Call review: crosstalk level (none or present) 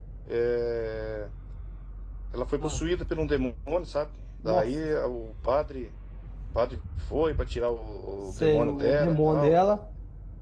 present